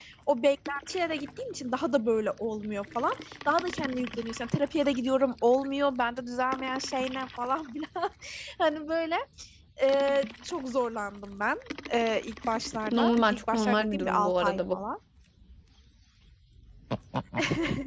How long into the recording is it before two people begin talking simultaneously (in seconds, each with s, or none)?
12.9 s